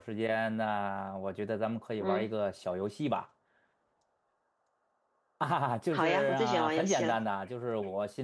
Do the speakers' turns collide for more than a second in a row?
Yes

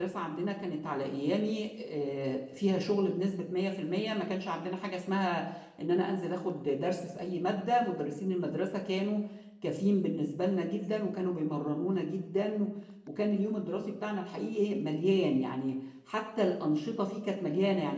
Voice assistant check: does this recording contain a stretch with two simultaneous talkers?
No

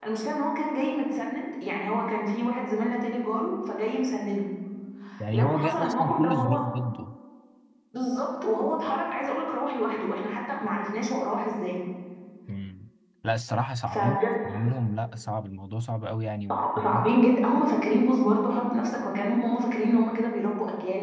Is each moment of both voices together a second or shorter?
No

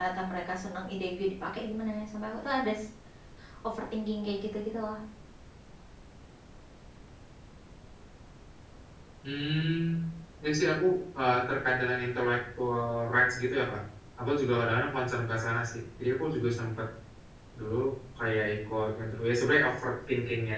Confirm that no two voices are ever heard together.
Yes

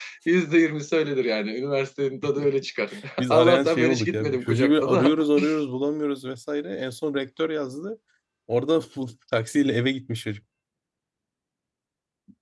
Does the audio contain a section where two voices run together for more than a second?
Yes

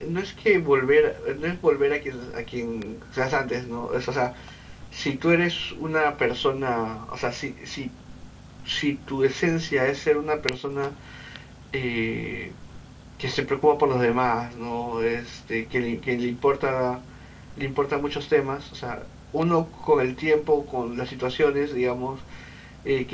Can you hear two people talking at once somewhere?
No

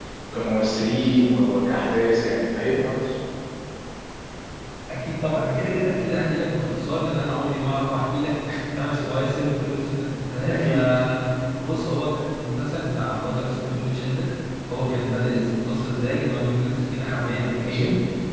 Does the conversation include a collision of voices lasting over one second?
No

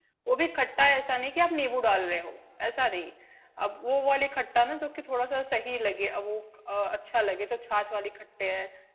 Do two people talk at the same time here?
No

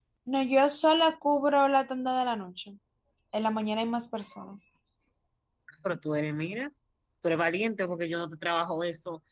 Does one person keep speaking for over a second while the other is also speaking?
No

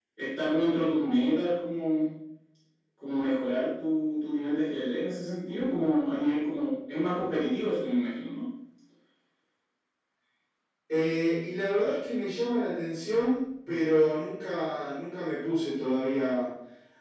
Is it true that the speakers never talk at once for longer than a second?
Yes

